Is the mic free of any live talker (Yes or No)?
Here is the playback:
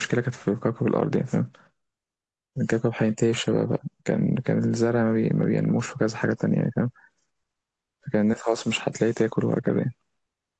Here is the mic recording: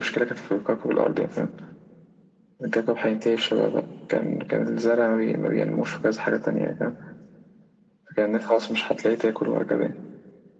Yes